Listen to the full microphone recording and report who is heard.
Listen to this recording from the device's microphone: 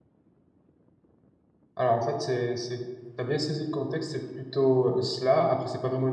user only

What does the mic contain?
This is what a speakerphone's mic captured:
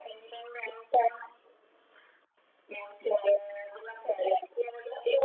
echo only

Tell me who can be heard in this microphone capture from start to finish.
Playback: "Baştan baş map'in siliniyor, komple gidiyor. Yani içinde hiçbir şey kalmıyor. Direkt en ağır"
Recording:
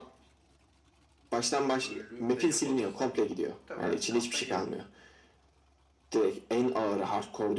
both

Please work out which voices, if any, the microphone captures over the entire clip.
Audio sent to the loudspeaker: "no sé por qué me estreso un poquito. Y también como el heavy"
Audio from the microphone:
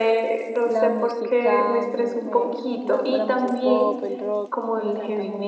both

